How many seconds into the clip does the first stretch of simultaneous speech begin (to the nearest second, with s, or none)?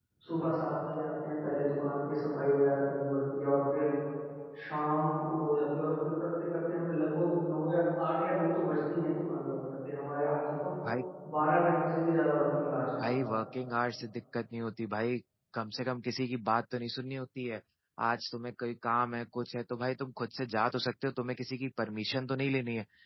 none